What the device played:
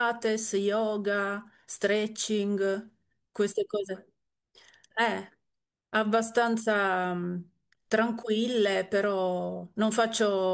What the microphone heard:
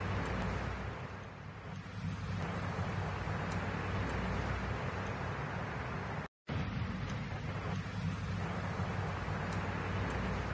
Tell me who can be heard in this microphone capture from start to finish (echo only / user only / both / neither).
neither